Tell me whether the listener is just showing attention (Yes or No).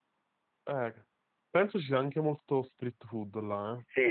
No